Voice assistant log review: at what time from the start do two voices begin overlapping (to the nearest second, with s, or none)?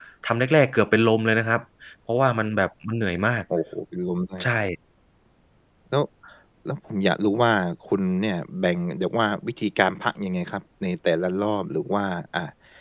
none